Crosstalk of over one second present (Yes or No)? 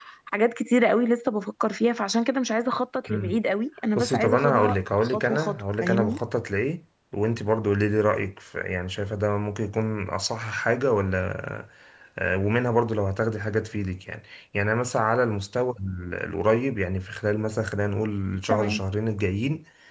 Yes